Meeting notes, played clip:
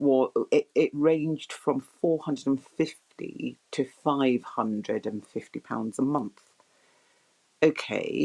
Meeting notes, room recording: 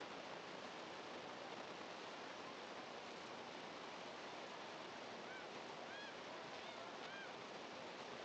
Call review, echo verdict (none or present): none